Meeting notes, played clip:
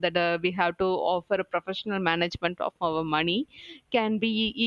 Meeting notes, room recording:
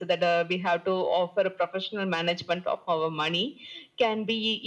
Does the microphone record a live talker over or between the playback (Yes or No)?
No